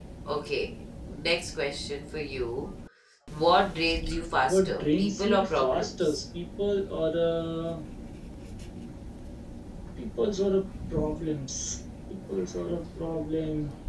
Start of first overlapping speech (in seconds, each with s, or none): 4.5 s